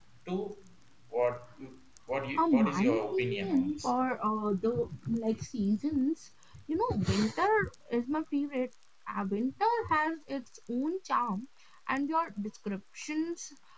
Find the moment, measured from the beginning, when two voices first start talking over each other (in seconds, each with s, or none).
2.4 s